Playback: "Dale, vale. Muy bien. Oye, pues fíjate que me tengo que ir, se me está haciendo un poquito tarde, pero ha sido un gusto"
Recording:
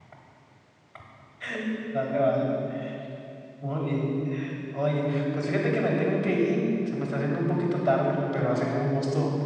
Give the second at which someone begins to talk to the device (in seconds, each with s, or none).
none